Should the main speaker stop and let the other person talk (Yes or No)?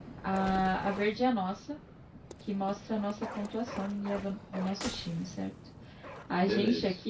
No